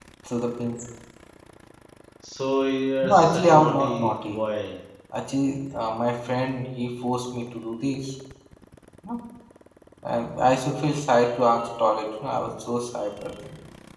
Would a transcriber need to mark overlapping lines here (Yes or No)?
Yes